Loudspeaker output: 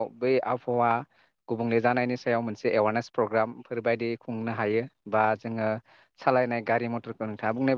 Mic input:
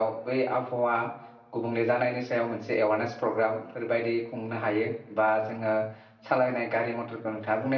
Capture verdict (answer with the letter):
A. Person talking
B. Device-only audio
B